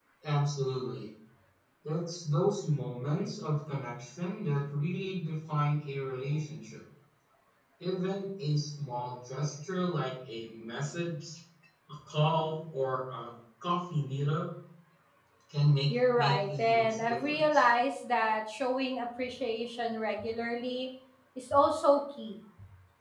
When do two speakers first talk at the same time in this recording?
15.9 s

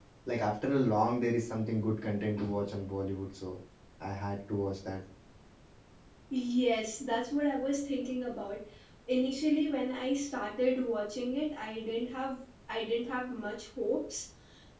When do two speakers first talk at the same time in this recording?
none

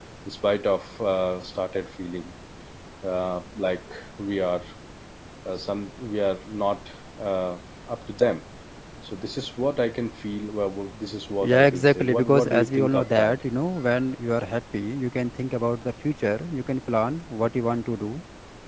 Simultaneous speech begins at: 11.4 s

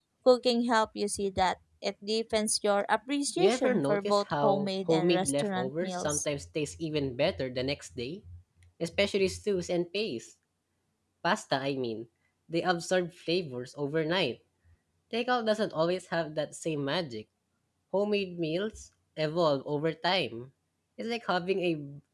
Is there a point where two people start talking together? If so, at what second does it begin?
3.4 s

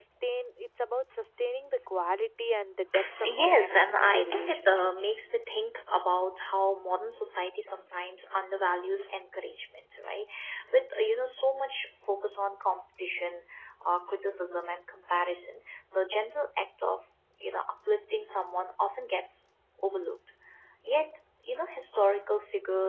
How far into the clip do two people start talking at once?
3.2 s

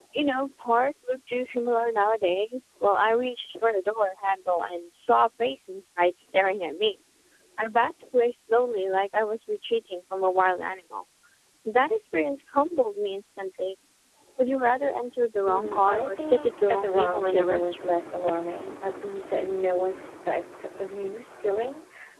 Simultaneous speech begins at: 15.4 s

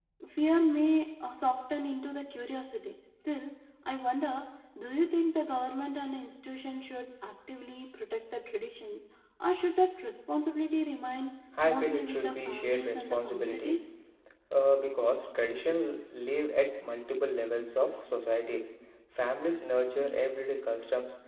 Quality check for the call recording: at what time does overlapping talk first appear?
11.6 s

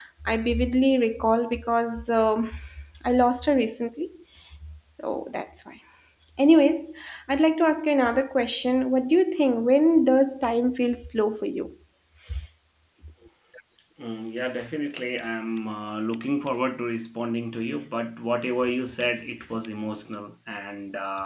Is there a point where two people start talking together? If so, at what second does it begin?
none

